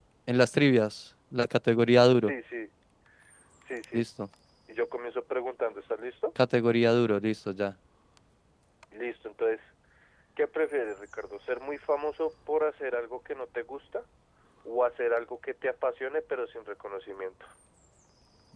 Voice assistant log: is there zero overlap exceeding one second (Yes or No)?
Yes